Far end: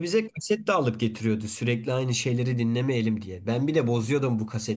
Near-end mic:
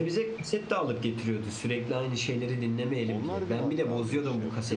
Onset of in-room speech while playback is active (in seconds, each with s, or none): 3.1 s